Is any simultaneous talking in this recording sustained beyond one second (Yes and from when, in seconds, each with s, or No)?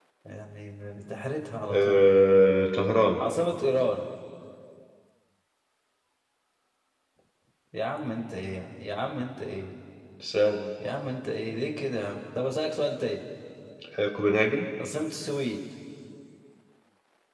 No